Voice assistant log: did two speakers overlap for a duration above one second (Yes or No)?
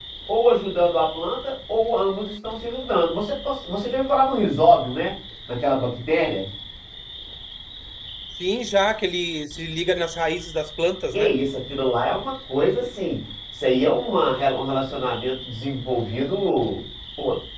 No